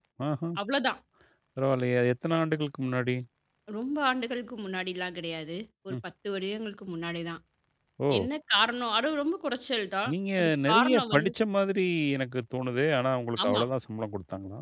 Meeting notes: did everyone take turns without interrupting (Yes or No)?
No